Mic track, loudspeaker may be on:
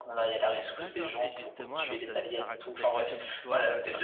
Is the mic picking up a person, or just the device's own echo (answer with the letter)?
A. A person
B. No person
A